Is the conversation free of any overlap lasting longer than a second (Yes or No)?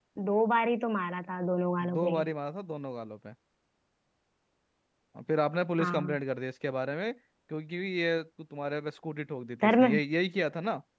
Yes